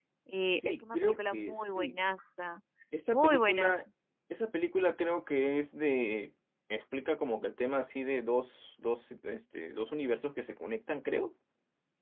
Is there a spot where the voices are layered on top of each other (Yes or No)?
Yes